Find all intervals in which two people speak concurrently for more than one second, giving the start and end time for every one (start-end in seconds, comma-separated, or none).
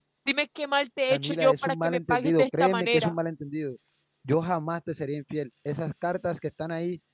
1.1-3.1